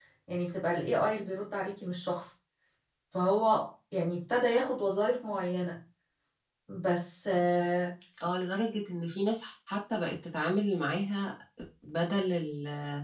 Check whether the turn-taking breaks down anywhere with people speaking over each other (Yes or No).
No